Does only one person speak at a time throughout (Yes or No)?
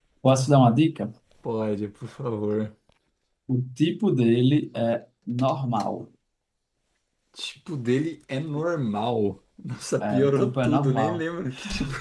No